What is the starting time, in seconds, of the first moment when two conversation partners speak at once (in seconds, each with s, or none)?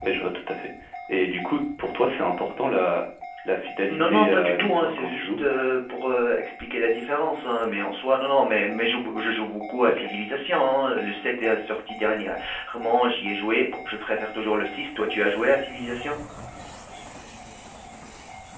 3.9 s